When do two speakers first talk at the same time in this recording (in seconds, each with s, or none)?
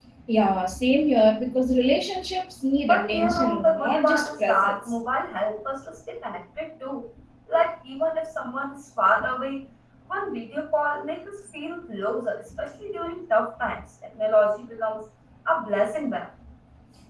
2.8 s